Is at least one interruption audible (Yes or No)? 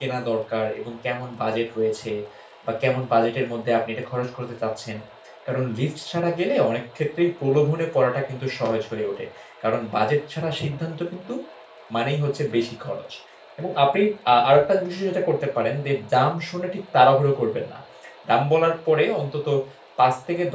No